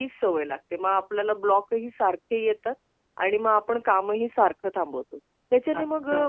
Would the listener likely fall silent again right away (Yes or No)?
Yes